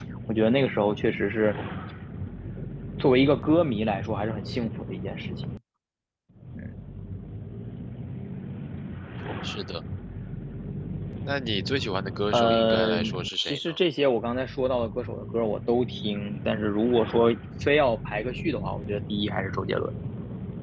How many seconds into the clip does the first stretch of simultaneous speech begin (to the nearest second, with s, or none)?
12 s